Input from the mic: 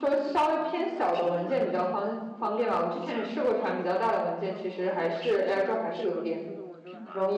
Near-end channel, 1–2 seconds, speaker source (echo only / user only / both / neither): both